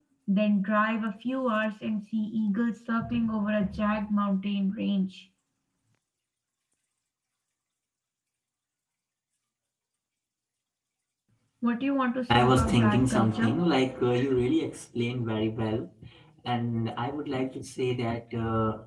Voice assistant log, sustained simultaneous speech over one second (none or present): present